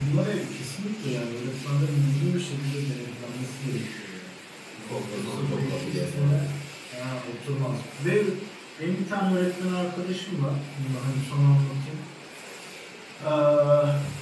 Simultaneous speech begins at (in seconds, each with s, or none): 5.1 s